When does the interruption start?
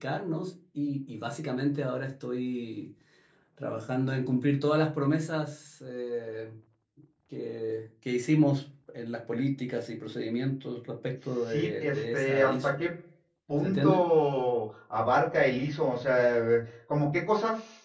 11.5 s

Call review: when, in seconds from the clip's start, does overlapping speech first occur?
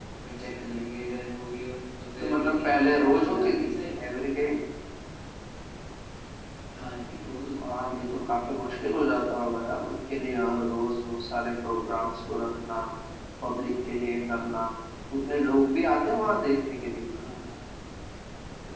2.2 s

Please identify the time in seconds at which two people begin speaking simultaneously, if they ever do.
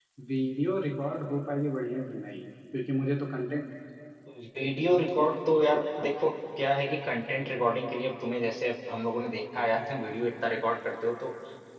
none

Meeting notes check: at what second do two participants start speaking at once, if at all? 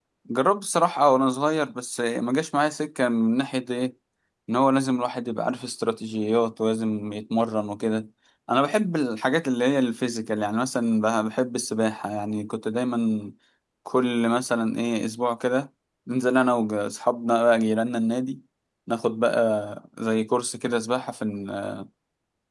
none

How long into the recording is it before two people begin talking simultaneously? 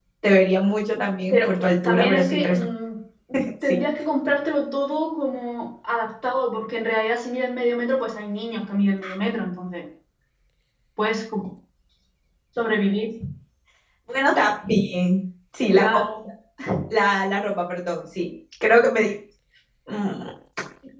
1.3 s

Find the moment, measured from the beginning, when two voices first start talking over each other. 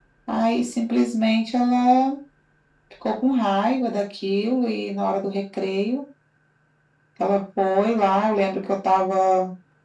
none

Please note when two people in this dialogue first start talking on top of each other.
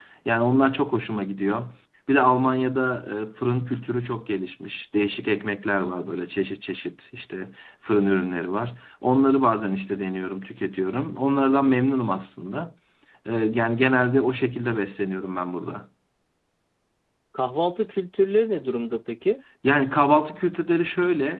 none

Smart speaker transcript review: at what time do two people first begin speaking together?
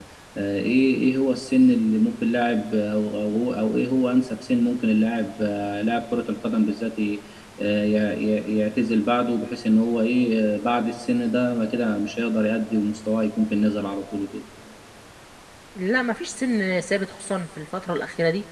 none

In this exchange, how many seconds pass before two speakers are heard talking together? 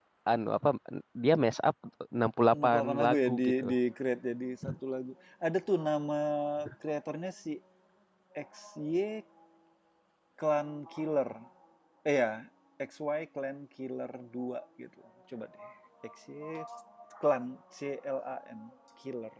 2.5 s

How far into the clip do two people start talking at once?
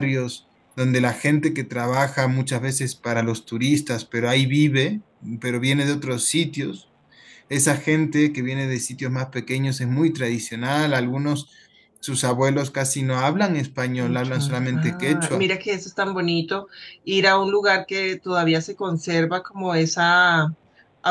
14.0 s

